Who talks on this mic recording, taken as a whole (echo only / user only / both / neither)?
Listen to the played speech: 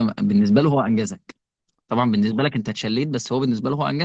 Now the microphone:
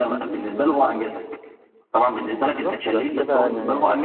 both